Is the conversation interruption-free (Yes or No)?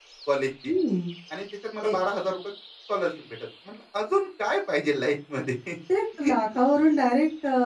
Yes